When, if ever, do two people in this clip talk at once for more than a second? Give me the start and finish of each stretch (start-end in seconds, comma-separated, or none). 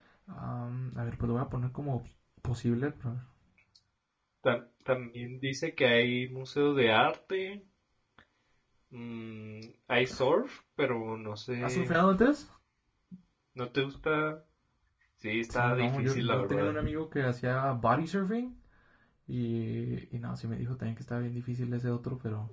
15.5-16.7